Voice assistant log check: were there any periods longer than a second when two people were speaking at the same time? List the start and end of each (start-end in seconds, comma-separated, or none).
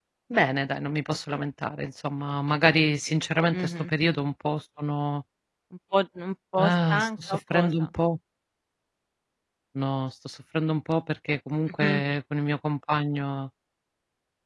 6.6-7.8